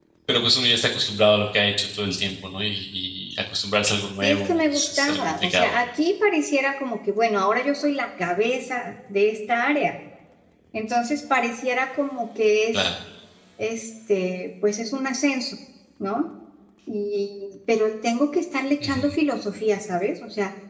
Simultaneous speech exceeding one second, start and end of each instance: 4.2-5.7

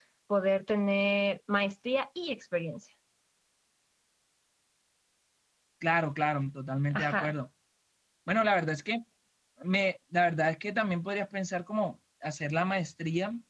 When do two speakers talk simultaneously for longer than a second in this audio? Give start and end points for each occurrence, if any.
none

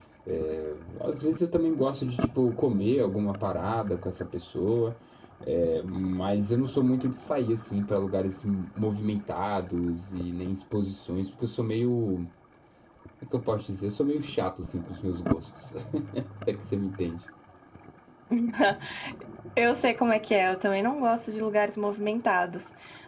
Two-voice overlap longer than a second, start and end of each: none

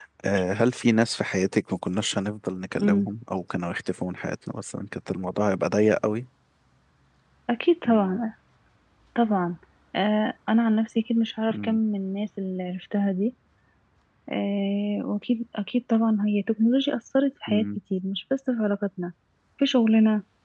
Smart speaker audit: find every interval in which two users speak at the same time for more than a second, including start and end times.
none

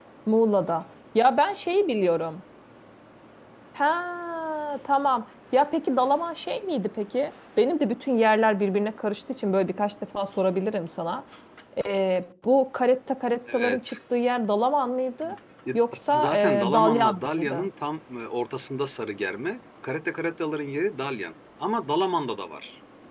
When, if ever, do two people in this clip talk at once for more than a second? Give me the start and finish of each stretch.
16.1-17.7

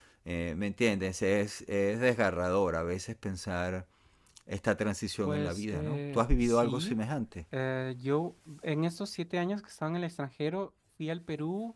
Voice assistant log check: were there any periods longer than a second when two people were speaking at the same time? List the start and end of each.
5.2-7.0

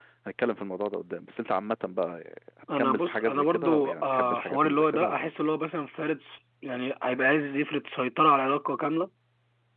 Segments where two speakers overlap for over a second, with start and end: 2.8-5.3

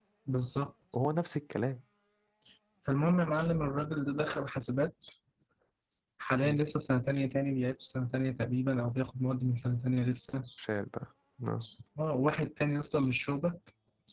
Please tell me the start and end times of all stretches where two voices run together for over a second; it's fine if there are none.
none

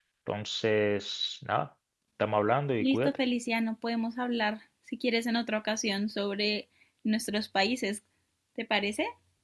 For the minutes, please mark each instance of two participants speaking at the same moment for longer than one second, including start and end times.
none

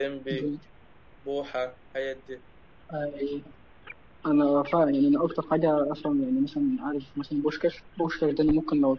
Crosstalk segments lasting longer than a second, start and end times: none

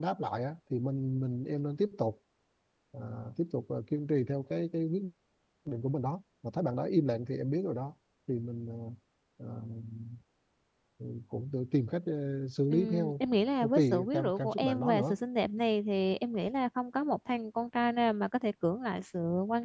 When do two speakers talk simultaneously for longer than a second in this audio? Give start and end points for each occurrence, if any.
13.6-15.2

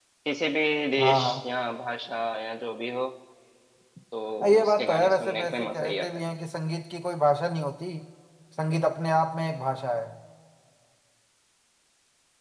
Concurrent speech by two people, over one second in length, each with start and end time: 4.6-6.1

